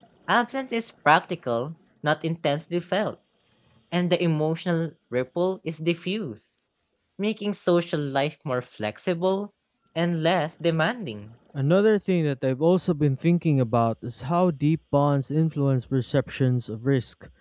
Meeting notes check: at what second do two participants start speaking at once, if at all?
none

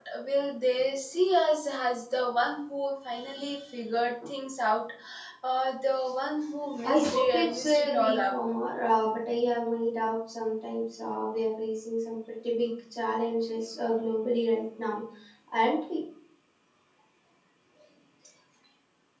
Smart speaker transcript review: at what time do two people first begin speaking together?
6.8 s

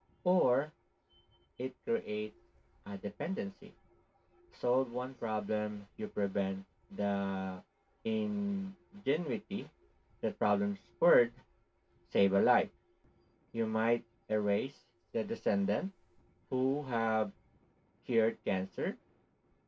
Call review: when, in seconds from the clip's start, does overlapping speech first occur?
none

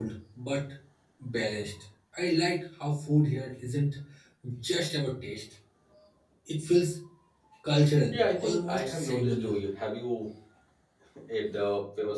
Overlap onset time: 8.1 s

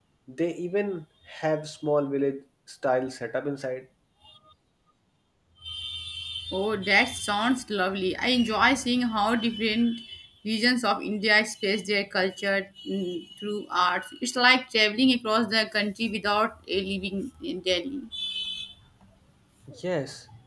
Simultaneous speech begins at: none

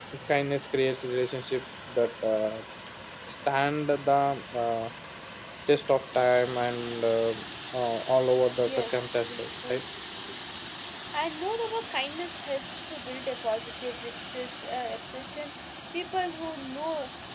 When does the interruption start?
8.6 s

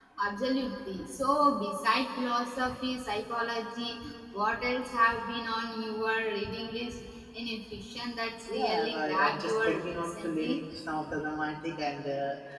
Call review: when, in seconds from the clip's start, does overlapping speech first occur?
8.5 s

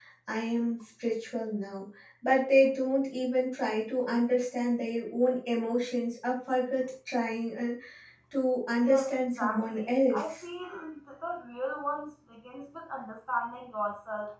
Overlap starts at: 8.8 s

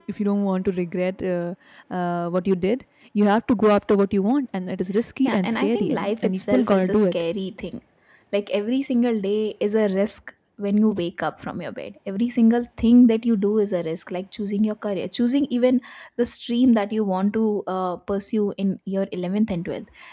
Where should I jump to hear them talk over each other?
5.2 s

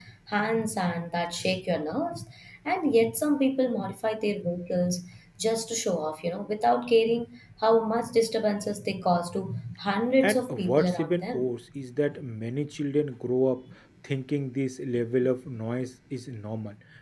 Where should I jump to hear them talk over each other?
10.2 s

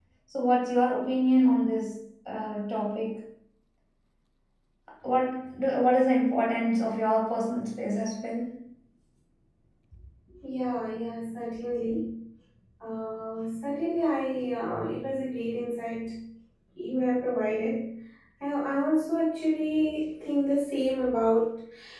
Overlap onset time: none

